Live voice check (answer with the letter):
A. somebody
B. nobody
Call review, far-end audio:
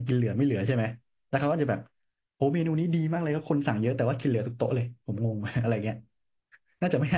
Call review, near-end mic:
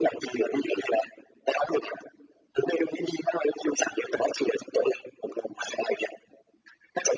B